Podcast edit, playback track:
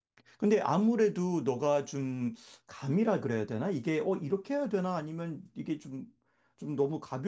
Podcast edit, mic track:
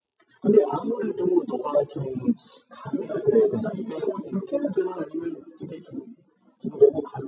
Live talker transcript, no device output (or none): none